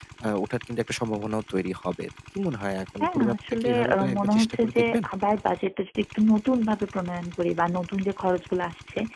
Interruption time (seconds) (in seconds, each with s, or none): 3.0 s